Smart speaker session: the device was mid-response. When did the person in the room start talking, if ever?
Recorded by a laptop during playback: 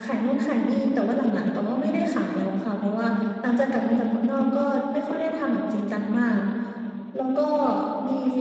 none

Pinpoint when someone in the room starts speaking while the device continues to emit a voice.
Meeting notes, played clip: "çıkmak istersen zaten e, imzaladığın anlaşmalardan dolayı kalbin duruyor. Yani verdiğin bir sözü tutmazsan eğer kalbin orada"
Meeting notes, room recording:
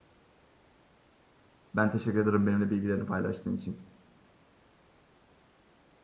1.7 s

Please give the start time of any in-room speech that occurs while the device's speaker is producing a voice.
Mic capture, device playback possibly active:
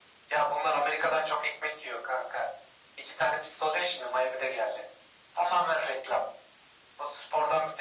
none

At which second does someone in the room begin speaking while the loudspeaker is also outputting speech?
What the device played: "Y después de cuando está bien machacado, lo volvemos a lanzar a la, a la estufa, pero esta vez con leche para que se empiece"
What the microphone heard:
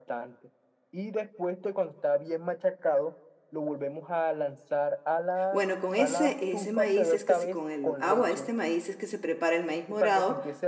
5.5 s

